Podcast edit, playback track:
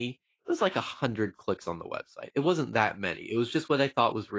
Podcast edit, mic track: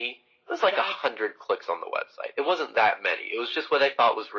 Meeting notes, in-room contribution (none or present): present